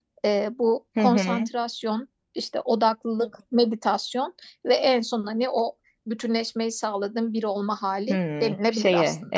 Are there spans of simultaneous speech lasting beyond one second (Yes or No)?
Yes